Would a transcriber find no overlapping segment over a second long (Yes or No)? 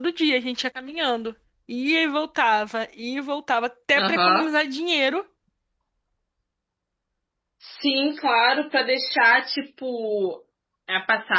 Yes